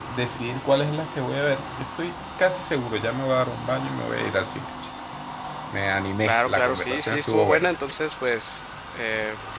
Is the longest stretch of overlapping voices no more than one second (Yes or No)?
No